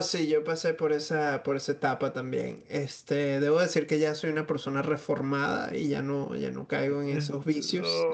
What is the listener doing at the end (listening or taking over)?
taking over